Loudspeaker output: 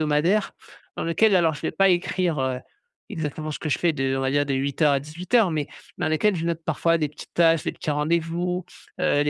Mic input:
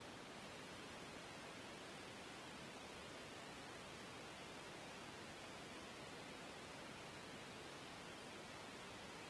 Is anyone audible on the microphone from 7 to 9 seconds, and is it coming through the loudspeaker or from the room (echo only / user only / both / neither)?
neither